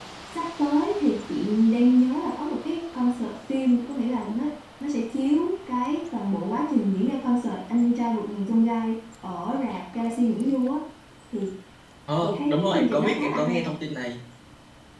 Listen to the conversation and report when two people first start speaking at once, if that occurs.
12 s

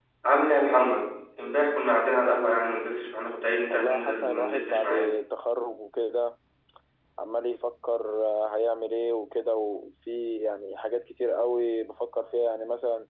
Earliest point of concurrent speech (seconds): 4 s

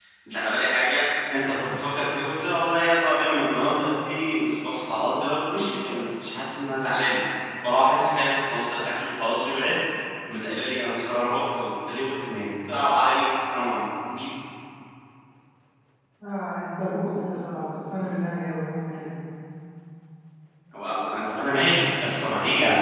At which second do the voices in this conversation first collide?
none

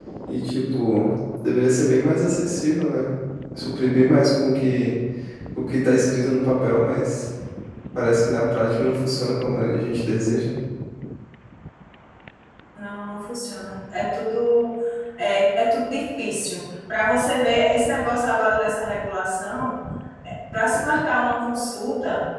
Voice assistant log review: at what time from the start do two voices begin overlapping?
none

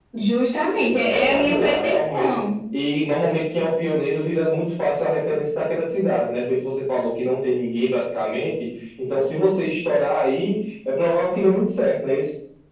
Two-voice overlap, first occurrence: 1 s

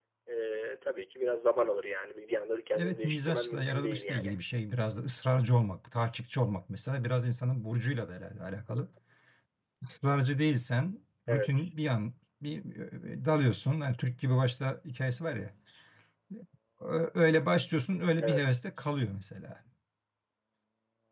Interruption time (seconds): 3 s

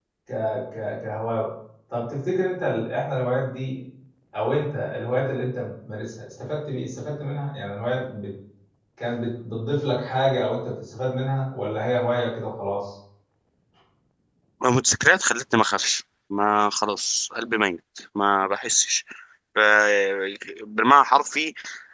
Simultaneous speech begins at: none

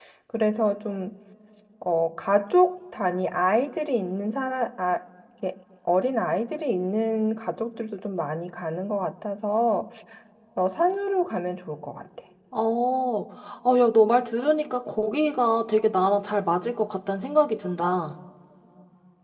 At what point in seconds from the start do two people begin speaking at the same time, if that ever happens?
none

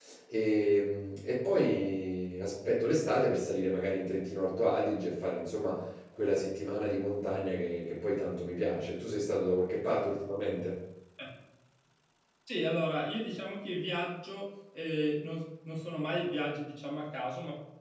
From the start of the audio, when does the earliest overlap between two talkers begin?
none

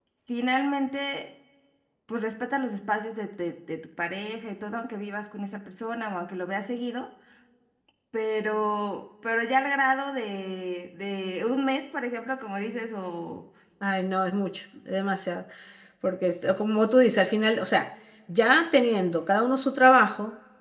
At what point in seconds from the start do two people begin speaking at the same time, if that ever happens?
none

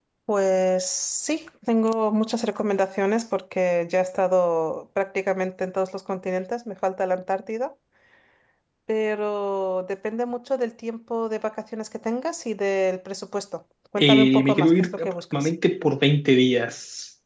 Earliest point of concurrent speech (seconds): 14 s

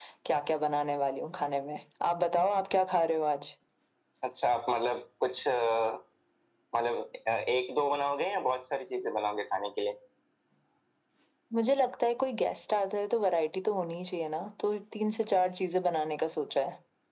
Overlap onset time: none

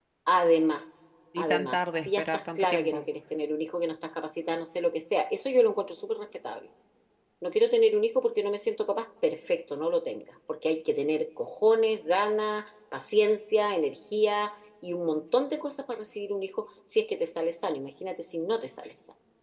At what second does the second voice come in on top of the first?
1 s

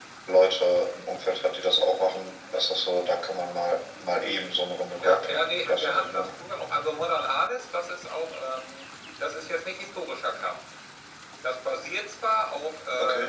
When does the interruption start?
5 s

